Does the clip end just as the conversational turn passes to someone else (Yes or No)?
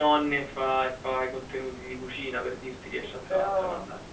Yes